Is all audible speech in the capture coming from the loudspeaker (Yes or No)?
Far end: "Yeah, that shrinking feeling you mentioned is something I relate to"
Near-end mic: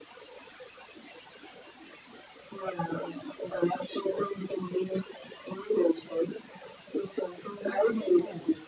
No